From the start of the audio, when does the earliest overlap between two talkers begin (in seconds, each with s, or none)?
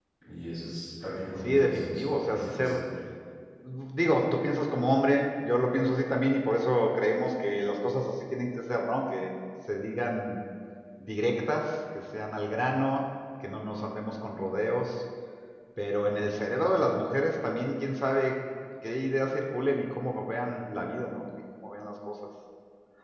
1.4 s